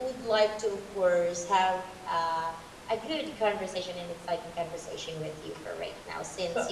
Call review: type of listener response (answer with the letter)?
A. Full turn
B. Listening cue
B